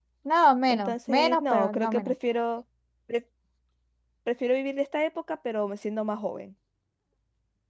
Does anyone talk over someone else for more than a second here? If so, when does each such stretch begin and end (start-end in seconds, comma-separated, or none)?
0.7-2.1